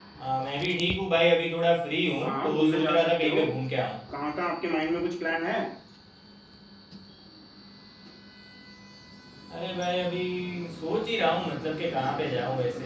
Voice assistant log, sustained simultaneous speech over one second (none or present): present